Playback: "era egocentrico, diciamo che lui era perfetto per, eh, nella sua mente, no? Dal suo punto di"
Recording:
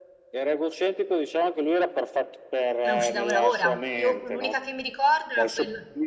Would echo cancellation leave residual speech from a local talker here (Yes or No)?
Yes